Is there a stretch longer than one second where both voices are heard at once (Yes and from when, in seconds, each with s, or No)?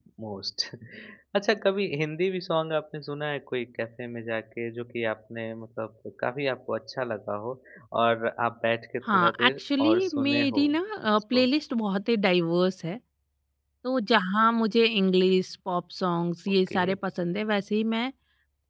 Yes, from 9.1 s